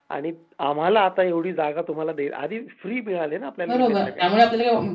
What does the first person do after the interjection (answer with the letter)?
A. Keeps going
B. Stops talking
B